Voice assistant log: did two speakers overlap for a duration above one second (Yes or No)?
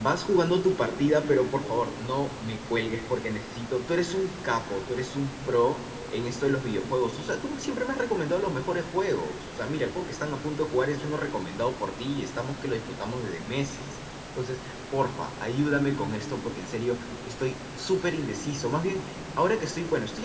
No